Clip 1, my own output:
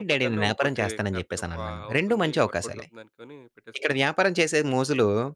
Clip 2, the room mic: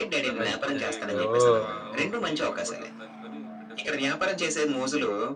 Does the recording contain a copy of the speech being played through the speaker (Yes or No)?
Yes